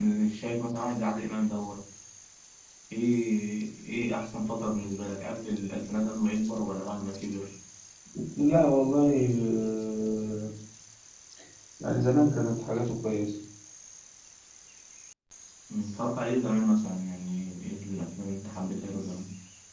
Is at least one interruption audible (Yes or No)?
No